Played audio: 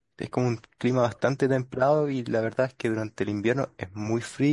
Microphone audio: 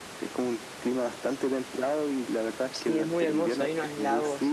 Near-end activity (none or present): present